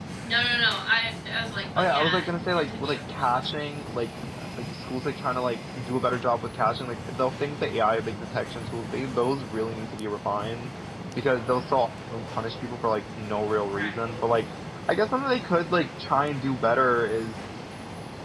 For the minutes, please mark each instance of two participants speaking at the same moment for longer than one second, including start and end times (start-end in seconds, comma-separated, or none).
1.8-3.0